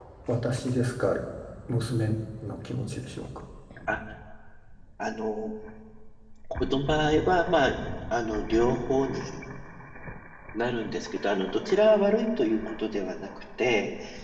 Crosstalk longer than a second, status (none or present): none